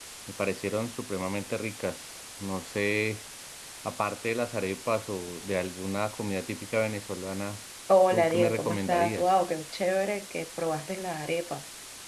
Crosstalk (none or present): present